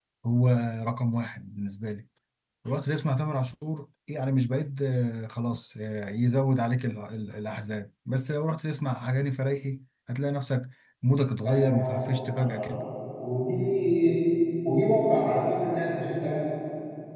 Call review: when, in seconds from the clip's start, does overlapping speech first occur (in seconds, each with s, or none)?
11.4 s